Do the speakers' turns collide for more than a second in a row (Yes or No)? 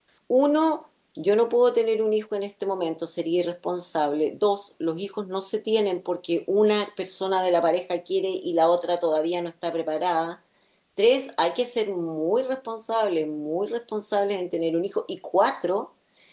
No